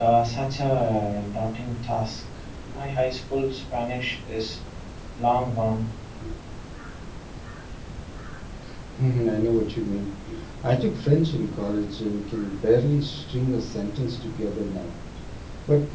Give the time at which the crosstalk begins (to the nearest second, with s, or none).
none